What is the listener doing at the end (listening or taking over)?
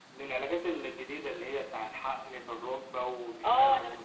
taking over